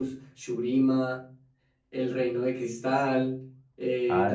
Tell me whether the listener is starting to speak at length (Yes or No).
Yes